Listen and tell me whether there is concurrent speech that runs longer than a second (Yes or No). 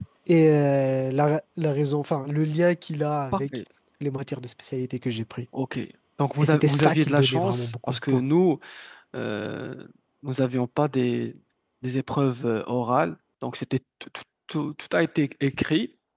Yes